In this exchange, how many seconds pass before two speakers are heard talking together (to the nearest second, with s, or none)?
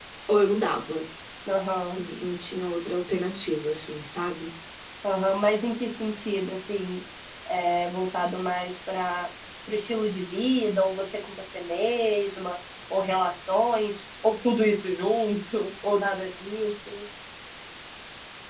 none